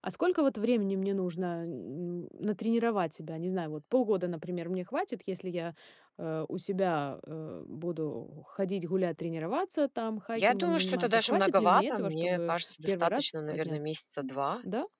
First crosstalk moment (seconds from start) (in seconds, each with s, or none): 10.3 s